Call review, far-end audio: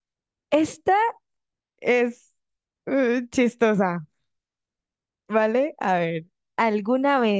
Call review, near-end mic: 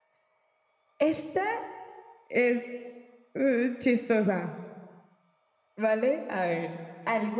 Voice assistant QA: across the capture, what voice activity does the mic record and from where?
echo only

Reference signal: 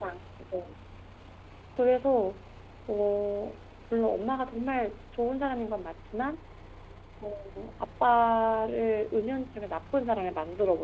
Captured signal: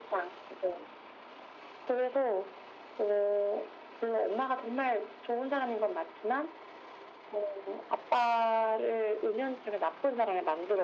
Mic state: echo only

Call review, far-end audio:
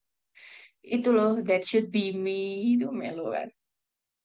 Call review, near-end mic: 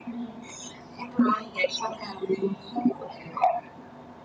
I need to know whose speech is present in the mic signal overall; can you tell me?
echo only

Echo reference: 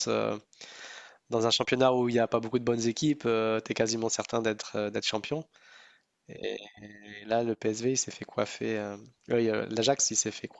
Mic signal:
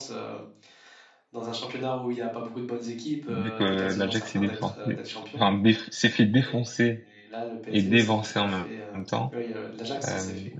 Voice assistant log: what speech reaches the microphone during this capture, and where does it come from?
both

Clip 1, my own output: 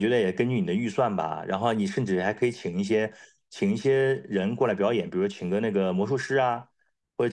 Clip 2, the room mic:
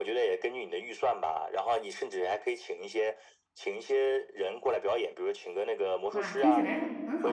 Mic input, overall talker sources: both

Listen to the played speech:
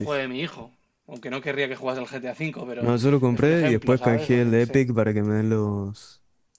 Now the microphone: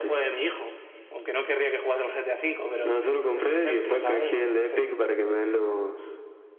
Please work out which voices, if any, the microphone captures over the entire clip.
echo only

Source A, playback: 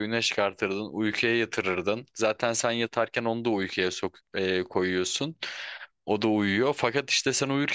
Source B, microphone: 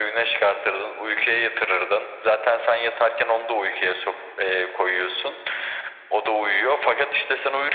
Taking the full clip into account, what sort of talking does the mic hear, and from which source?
echo only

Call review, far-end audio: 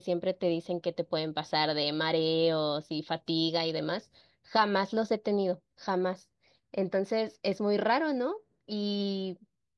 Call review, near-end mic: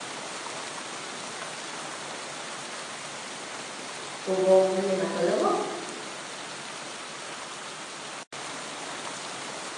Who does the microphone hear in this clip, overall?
user only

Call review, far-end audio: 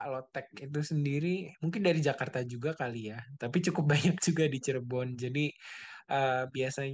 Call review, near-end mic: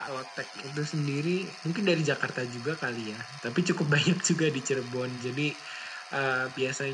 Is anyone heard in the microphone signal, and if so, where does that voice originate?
echo only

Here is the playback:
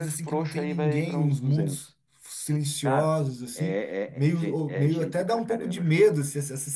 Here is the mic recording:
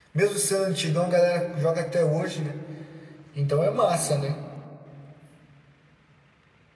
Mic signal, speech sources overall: user only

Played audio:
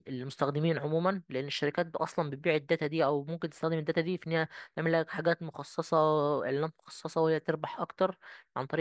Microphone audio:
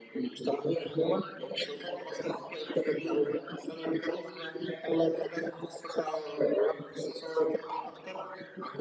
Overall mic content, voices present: echo only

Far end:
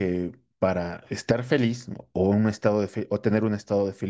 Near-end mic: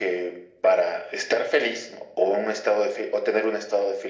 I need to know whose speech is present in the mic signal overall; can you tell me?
echo only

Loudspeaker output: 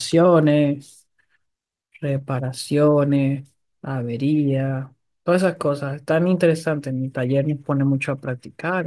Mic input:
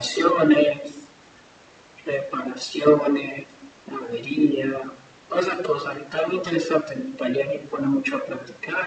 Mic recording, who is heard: echo only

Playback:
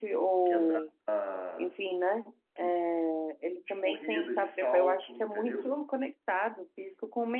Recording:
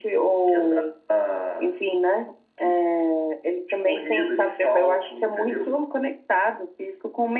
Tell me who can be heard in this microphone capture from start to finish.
echo only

